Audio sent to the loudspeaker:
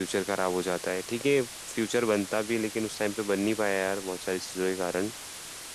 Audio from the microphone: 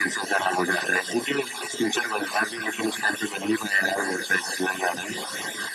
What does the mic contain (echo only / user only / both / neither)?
echo only